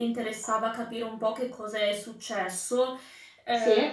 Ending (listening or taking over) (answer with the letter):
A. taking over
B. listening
B